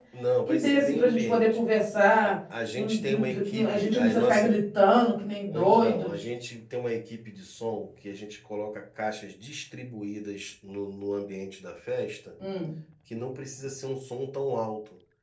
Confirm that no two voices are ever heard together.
No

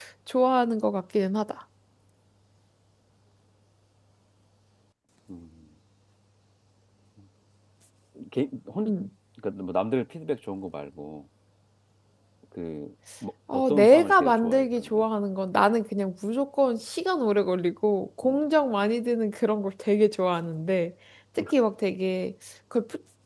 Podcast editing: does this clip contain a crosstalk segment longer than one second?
Yes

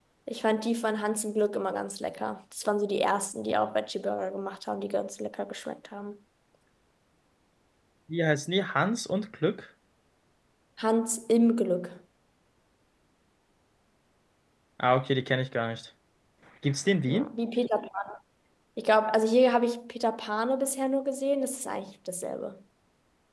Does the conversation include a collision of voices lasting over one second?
No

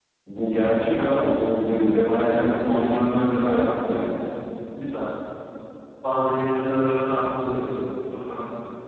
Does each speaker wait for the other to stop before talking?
No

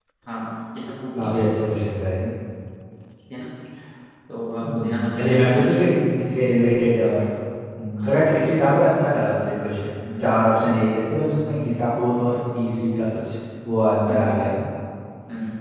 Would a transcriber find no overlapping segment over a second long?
No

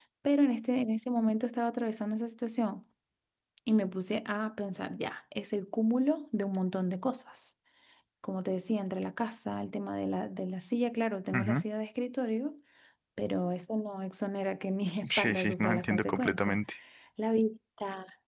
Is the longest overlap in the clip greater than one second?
Yes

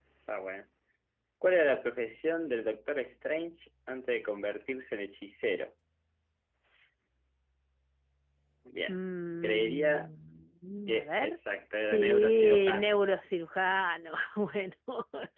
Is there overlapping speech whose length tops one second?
Yes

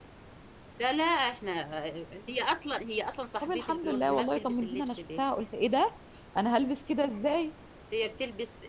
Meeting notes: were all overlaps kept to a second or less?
No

